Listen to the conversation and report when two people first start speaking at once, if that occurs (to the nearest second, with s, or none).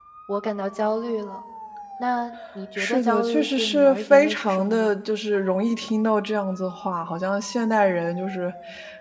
3 s